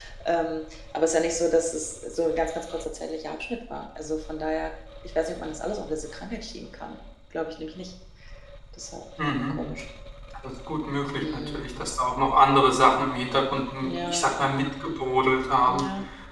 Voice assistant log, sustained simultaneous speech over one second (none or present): none